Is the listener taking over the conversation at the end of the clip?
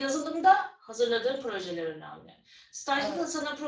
No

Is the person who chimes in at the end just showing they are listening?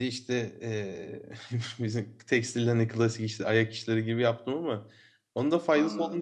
Yes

